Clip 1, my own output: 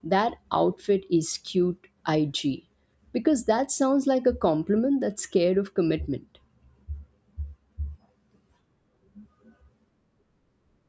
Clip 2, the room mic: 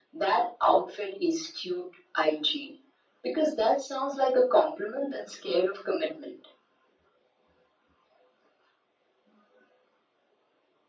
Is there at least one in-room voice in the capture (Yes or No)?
No